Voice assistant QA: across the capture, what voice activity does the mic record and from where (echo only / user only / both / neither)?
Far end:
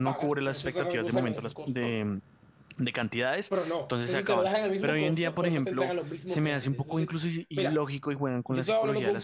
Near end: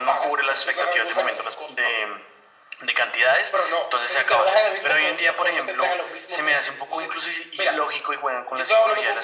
echo only